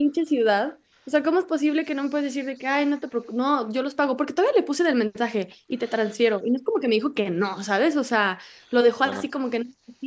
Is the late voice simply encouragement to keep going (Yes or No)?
Yes